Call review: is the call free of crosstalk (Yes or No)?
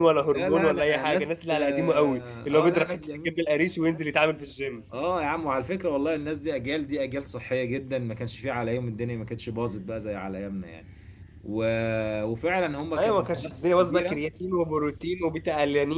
No